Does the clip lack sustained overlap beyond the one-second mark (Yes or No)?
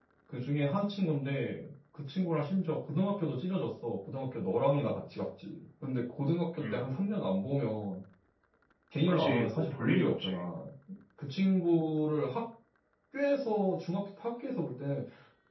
No